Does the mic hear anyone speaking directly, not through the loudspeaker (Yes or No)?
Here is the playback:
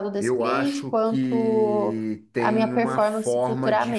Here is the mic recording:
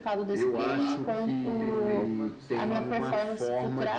Yes